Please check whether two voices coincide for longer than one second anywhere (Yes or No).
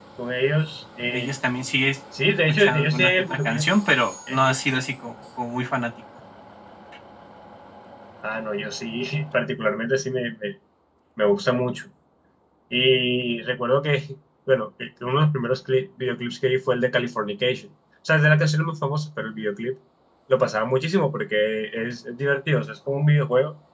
Yes